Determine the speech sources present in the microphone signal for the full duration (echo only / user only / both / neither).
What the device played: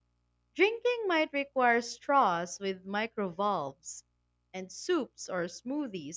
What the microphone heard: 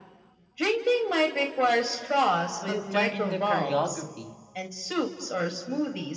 both